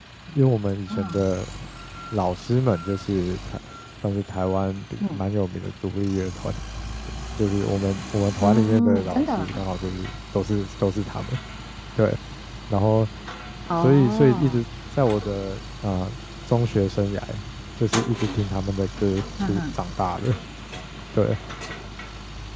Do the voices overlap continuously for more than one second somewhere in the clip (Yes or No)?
Yes